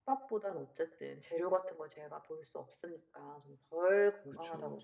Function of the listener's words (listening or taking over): listening